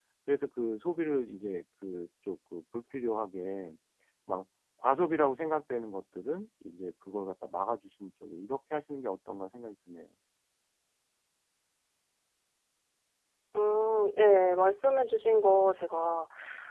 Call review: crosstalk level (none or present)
none